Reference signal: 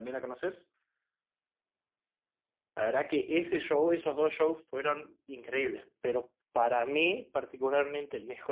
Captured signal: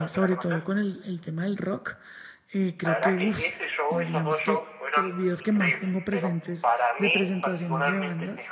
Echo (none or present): present